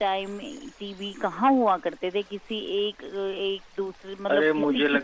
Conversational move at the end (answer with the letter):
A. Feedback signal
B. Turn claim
B